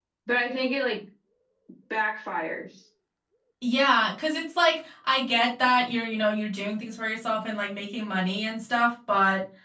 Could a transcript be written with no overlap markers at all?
Yes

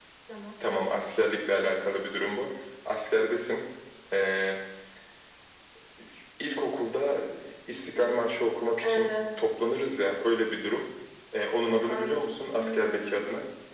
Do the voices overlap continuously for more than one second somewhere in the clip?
Yes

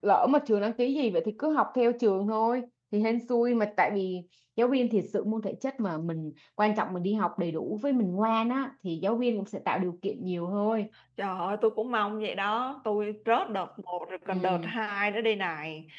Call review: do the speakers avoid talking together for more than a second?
Yes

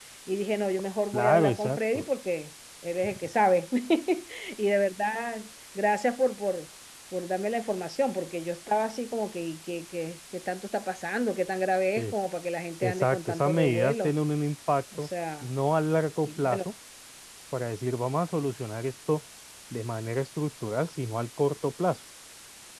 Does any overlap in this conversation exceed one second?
Yes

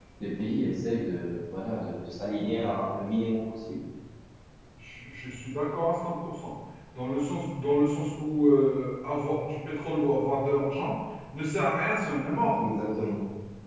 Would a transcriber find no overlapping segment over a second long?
Yes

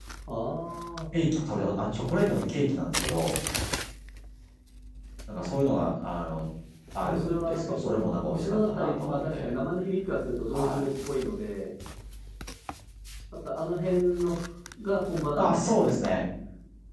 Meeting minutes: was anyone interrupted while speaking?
Yes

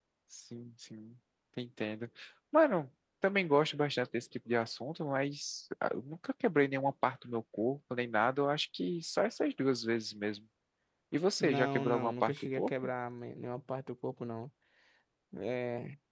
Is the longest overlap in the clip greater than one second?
Yes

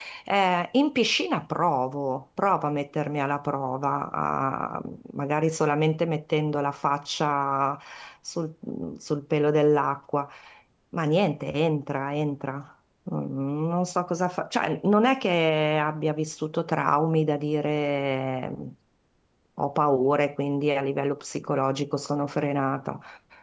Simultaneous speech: No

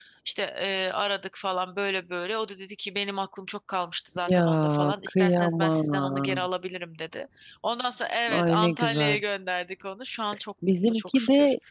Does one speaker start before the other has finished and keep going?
Yes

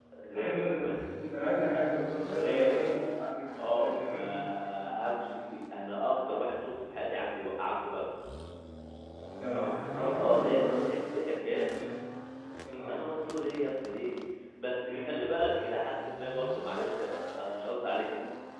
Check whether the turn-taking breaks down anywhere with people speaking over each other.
Yes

